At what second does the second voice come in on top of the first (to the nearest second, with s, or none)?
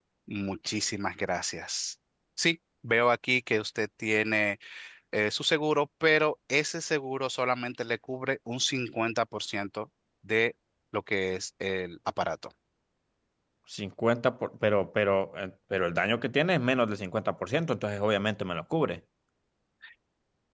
none